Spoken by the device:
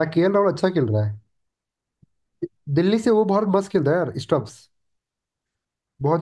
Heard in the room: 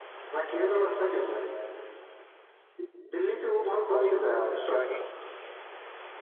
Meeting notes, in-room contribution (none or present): present